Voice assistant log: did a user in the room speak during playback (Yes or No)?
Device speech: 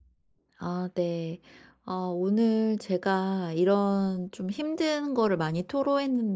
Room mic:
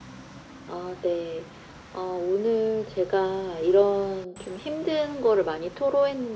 No